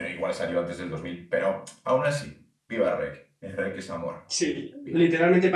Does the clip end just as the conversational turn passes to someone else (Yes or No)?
Yes